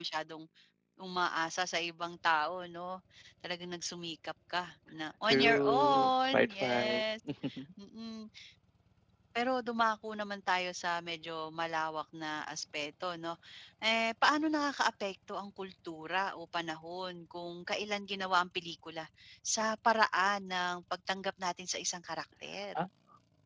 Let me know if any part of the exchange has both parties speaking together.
Yes, from 5.3 s

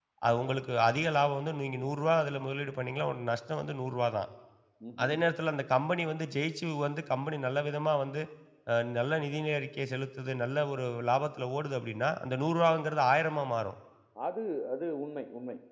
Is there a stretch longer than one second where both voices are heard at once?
No

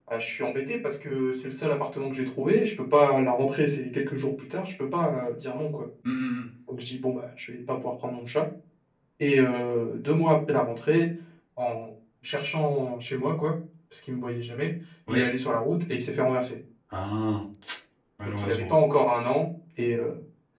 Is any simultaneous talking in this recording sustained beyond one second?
No

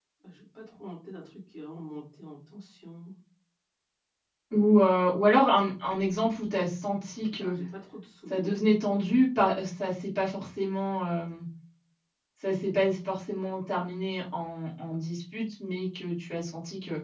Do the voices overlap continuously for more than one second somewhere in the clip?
No

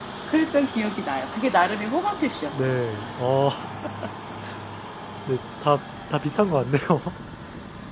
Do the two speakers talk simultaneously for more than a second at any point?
No

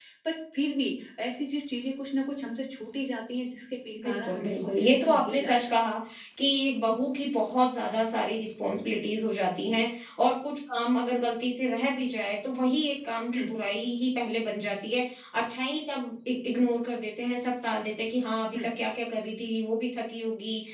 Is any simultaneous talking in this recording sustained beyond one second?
Yes, from 4.0 s

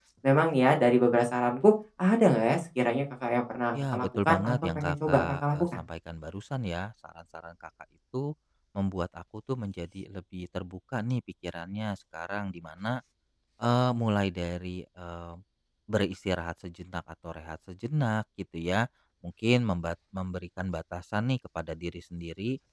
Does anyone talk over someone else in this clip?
Yes, from 3.7 s

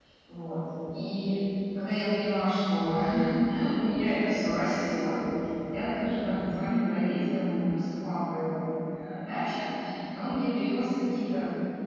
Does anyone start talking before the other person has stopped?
No

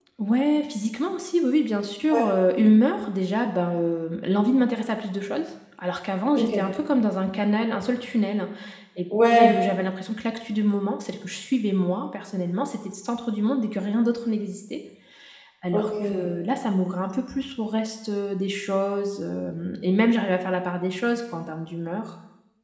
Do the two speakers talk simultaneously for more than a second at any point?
No

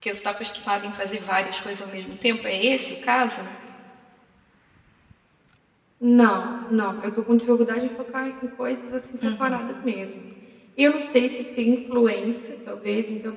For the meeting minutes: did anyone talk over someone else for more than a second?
No

